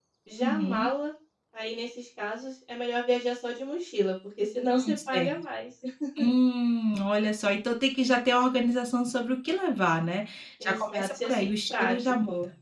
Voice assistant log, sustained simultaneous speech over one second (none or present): present